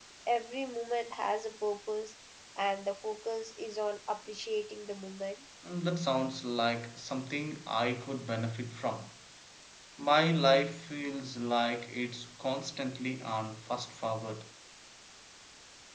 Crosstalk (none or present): none